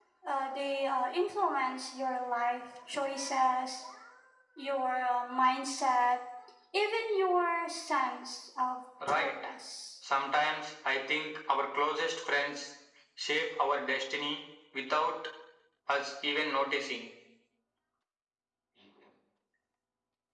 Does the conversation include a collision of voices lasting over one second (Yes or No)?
No